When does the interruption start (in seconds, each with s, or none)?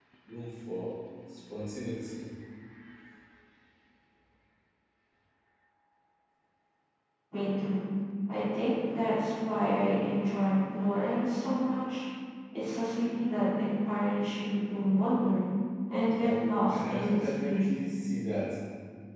16.2 s